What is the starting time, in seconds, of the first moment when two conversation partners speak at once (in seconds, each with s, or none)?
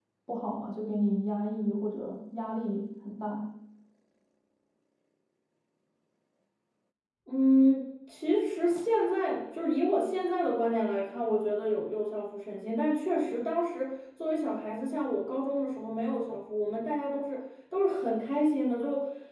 none